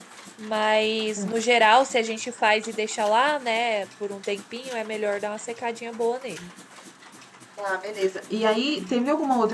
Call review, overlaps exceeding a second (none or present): none